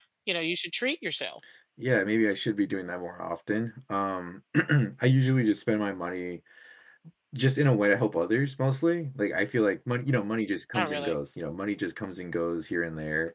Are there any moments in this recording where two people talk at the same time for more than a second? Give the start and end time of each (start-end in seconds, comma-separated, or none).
none